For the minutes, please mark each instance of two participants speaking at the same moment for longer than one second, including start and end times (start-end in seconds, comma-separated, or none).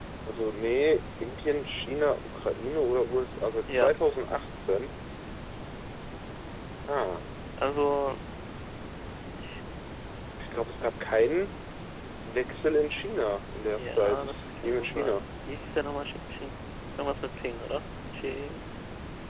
13.7-15.2